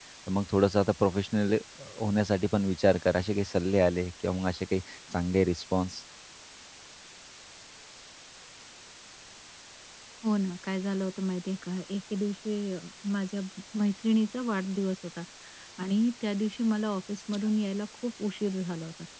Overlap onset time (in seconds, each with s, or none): none